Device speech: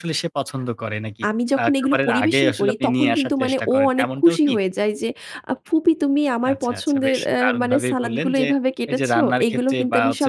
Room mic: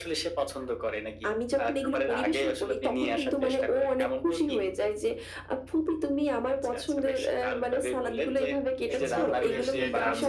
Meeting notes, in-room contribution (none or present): present